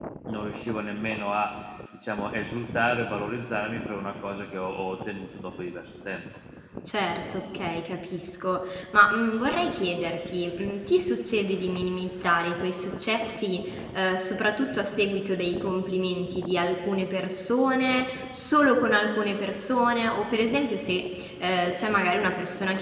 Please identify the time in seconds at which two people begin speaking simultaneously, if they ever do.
none

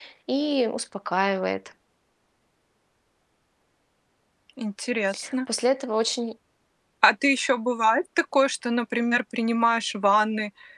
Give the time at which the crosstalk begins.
none

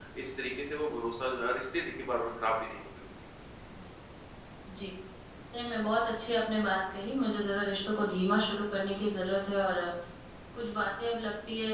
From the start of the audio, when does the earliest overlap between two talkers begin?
none

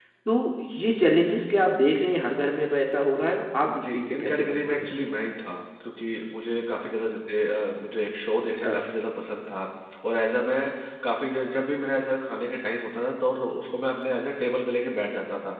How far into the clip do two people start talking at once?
3.7 s

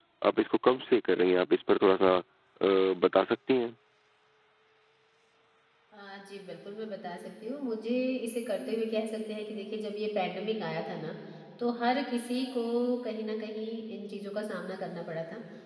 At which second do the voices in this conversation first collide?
none

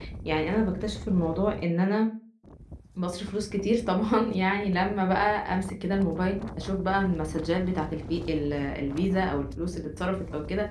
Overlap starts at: none

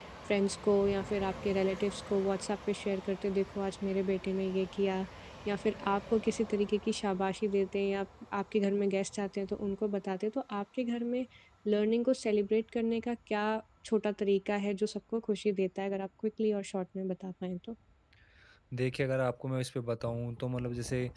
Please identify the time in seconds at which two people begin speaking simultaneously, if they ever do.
none

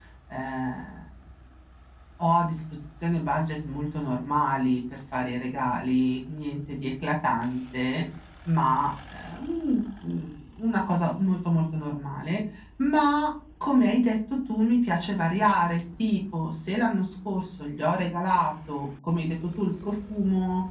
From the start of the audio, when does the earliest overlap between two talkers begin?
none

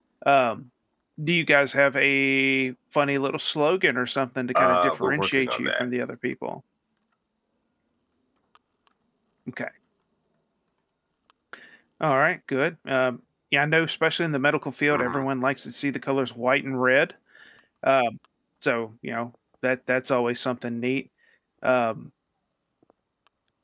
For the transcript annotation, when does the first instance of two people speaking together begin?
4.6 s

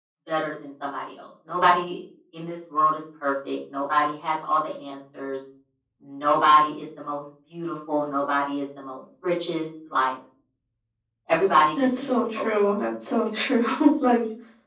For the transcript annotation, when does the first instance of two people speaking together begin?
11.8 s

